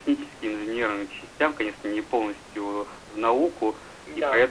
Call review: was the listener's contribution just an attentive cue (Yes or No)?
Yes